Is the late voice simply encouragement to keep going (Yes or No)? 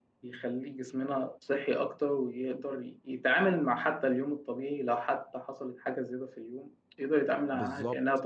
No